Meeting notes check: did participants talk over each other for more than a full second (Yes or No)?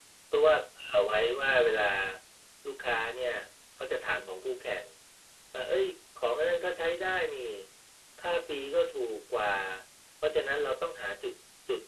No